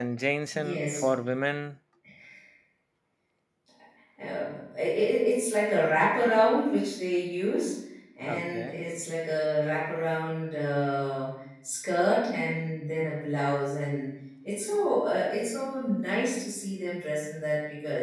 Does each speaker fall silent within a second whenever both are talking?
Yes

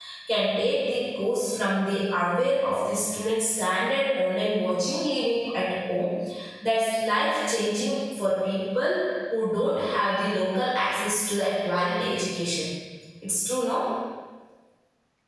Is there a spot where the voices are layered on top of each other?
No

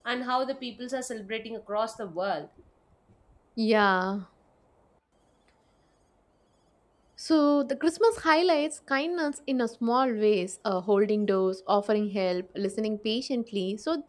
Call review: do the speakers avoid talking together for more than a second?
Yes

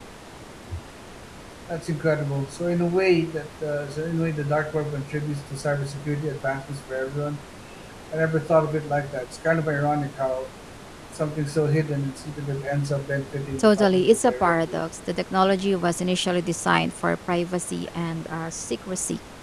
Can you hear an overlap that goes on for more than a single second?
Yes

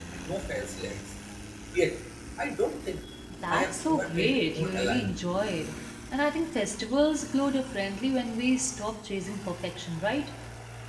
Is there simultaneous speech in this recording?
Yes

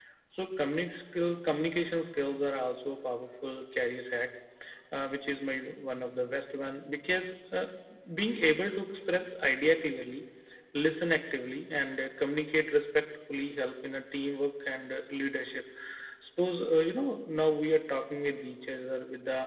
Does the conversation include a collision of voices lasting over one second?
No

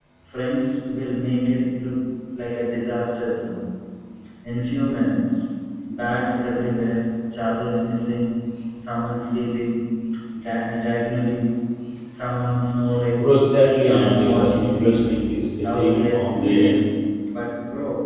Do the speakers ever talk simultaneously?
Yes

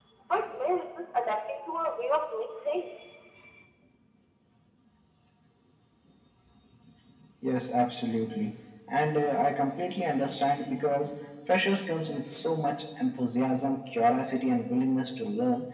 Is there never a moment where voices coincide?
Yes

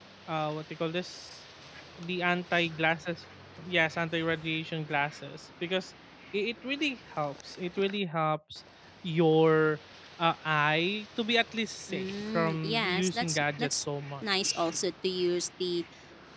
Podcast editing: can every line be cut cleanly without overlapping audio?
No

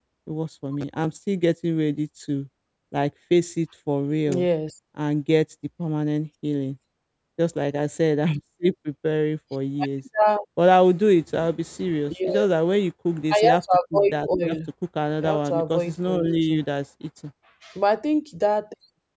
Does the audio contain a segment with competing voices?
Yes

